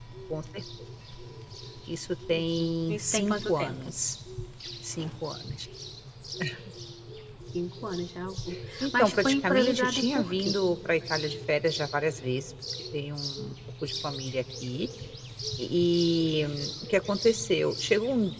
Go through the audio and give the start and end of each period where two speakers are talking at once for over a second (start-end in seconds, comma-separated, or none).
2.3-3.9, 9.0-10.6